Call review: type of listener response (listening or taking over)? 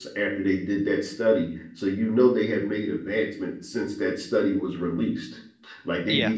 listening